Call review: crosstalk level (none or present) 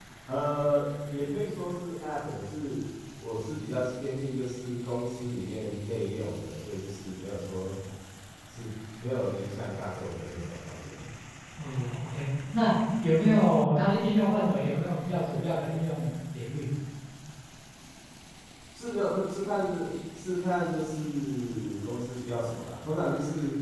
none